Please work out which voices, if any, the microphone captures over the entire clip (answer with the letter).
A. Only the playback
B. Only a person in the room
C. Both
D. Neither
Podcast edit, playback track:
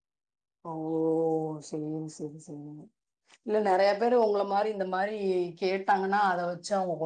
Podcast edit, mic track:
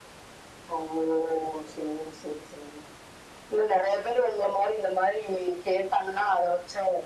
A